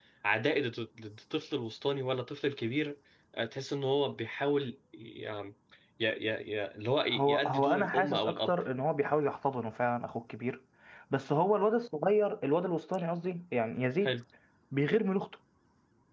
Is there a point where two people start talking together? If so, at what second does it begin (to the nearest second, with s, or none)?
7 s